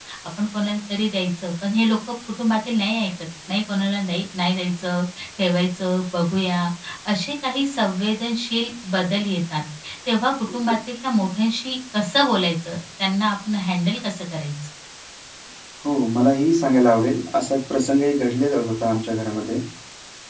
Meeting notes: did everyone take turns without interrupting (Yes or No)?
Yes